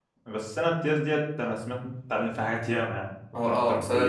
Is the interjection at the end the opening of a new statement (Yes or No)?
Yes